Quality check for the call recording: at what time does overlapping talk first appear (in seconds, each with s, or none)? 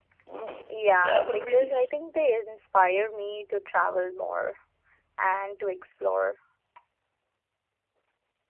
0.7 s